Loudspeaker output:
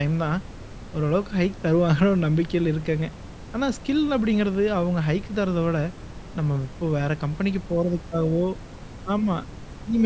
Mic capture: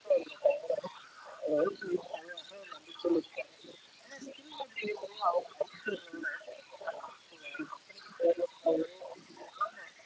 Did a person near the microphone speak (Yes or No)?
No